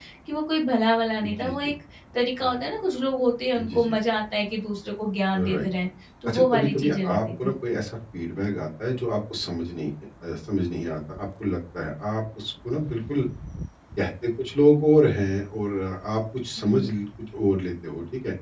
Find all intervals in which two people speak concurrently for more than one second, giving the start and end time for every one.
6.3-7.5

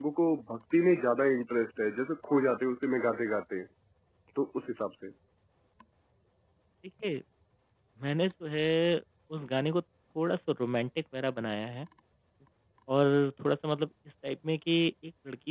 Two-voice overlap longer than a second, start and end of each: none

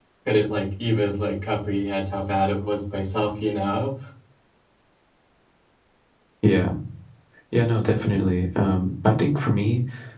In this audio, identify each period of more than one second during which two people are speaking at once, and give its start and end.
none

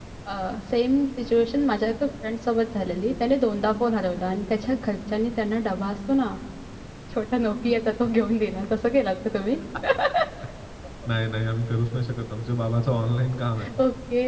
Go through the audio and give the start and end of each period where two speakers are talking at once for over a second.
none

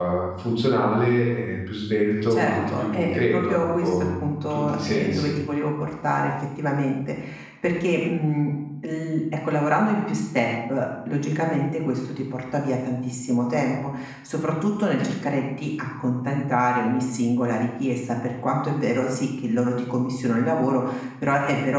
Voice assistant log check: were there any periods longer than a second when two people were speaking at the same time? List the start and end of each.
2.3-5.3

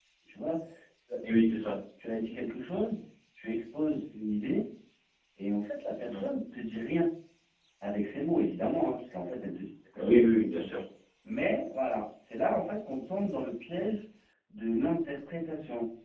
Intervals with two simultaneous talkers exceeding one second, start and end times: none

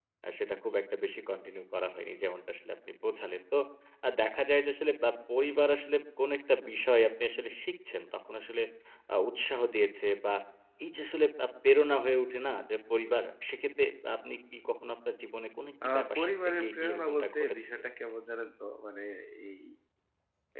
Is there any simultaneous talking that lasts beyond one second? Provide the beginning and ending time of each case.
15.9-17.9

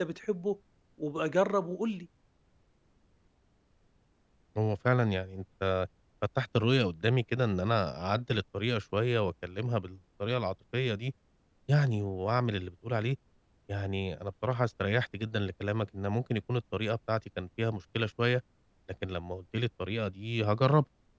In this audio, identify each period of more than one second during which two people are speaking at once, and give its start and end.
none

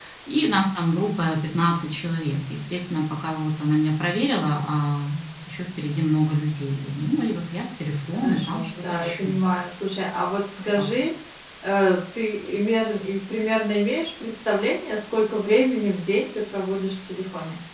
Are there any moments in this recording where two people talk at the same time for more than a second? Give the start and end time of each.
8.1-9.3

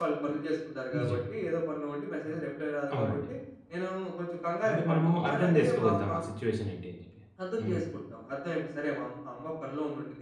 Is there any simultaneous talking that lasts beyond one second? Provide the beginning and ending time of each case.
4.7-6.1

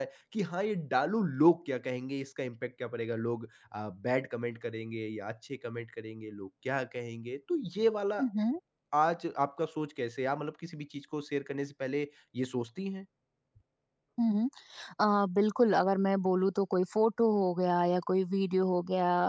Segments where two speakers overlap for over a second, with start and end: none

